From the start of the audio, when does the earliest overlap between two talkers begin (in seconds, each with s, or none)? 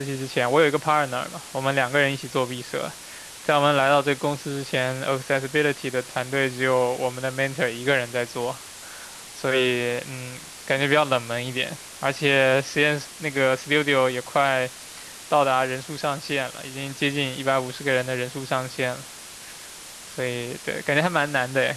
none